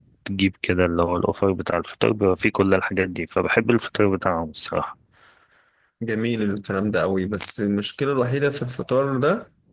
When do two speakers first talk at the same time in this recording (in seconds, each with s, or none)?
none